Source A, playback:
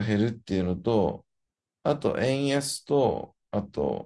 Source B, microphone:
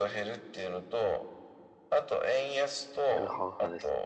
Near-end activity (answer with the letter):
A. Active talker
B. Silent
A